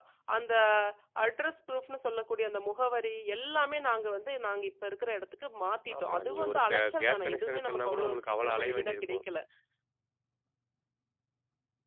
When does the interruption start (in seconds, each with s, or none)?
5.9 s